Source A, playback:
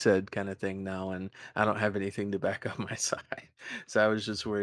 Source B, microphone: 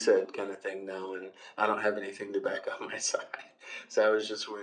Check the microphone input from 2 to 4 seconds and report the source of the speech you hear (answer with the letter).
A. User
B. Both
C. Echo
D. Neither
C